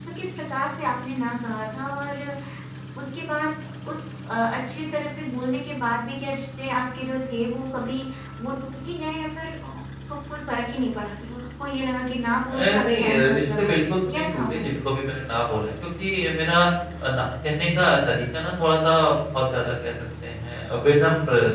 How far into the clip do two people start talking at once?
12.5 s

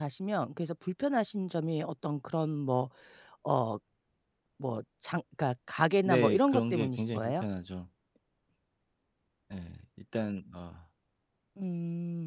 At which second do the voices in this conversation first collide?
6.0 s

